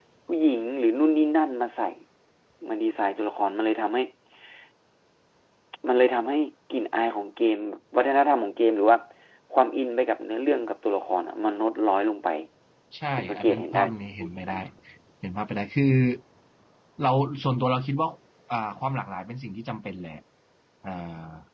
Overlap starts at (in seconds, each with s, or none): 13.2 s